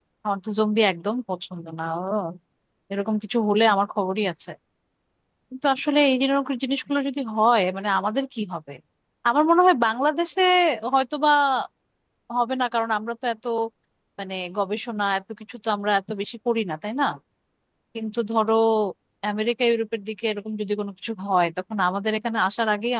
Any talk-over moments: No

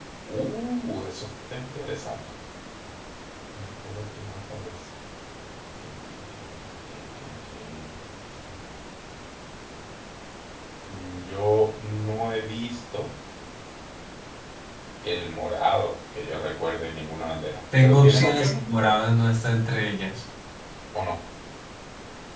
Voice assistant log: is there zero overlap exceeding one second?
No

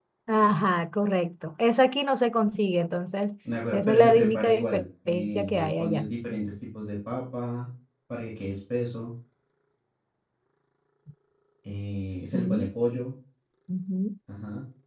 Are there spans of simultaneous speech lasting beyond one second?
Yes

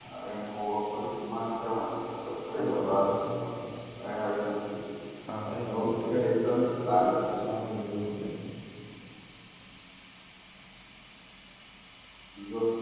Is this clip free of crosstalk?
No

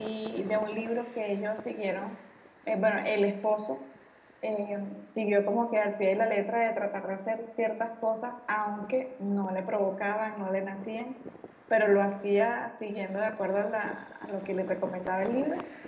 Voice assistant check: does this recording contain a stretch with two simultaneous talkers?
No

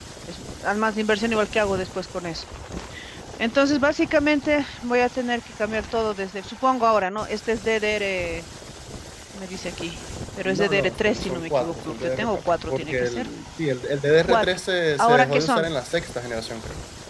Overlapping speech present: Yes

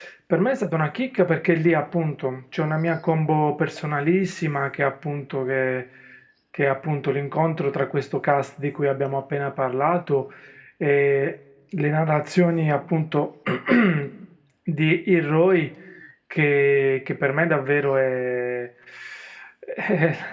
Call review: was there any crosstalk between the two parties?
No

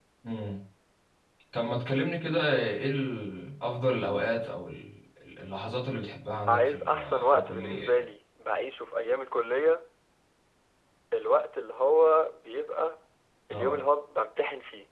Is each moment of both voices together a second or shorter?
No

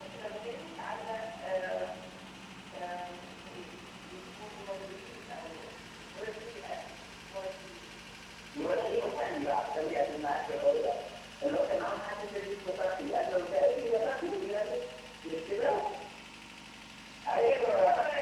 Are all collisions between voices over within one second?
No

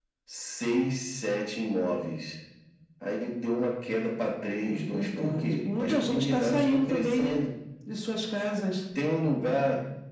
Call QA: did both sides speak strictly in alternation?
No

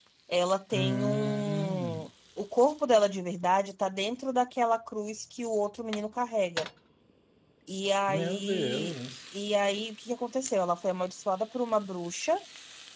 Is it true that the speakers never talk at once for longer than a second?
No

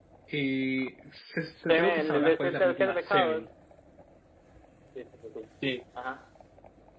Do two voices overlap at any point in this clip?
Yes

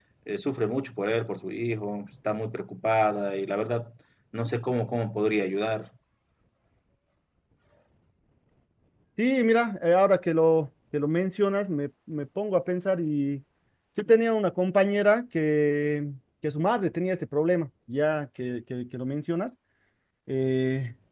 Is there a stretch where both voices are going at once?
No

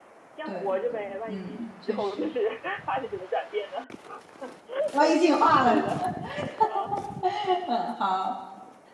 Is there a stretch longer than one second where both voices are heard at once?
Yes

